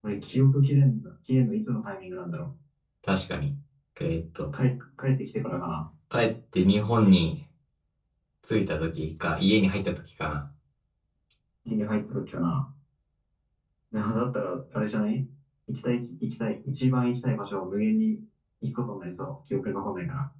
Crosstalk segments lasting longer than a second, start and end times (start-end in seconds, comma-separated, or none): none